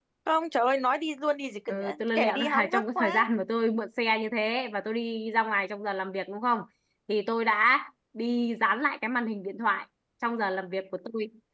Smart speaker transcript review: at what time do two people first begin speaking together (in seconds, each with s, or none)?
1.7 s